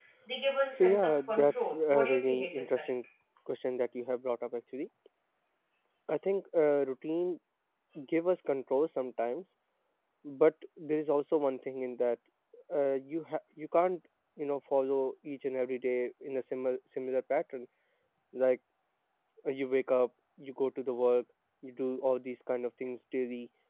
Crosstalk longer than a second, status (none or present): present